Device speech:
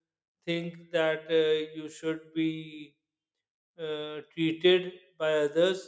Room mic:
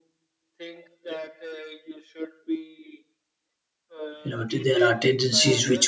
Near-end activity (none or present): present